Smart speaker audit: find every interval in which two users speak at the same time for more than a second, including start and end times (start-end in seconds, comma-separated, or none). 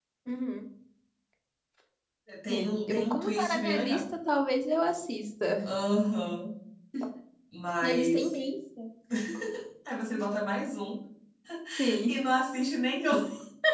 2.5-4.0